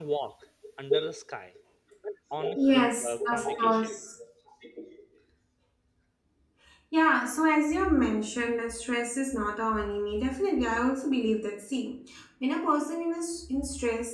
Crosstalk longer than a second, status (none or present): present